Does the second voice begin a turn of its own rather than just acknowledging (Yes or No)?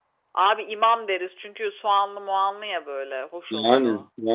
Yes